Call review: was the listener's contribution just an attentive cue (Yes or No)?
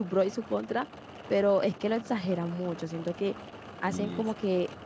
Yes